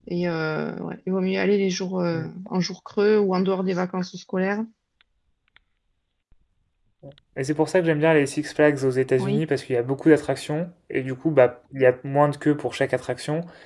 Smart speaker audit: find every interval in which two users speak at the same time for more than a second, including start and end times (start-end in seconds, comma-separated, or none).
none